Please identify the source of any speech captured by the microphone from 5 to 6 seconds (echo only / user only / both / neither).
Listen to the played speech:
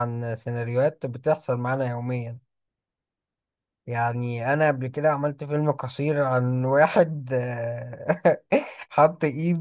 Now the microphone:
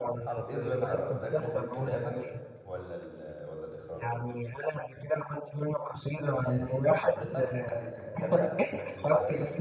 echo only